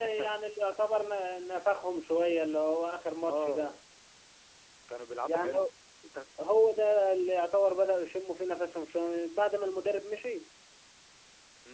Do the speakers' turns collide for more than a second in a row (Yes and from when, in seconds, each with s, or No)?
No